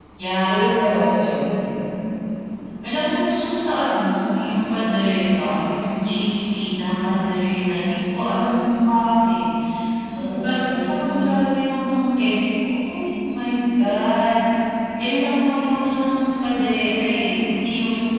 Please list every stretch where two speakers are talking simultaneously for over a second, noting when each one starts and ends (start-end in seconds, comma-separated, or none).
10.2-11.4